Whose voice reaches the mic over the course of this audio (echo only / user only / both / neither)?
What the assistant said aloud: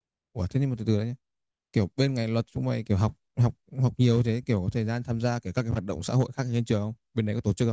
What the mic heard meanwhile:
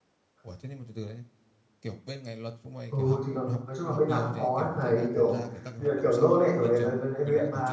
both